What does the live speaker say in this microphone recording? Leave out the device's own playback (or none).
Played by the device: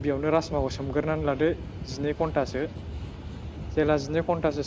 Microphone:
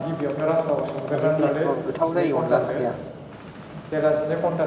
हायजें बिलाइ होबाबो गोथाव जायो अनला ओंख्रिया